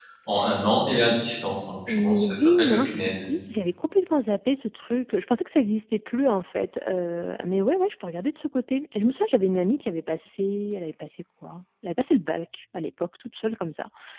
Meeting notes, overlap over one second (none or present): present